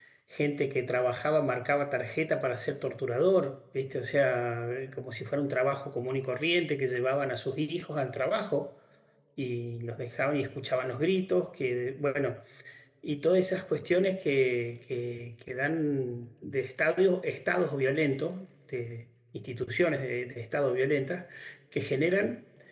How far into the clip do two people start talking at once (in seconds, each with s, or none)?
none